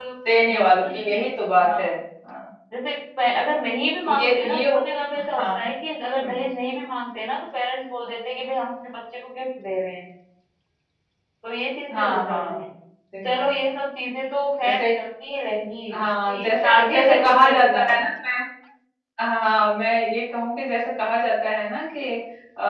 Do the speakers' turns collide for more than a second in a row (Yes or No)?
Yes